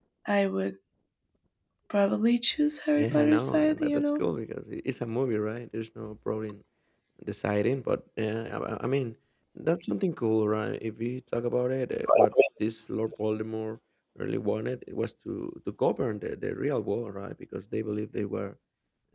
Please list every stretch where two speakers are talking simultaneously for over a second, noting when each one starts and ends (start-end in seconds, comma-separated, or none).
3.0-4.2